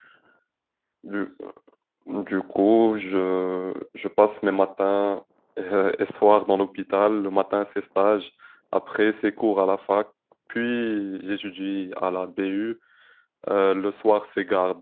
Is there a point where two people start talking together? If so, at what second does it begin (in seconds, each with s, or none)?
none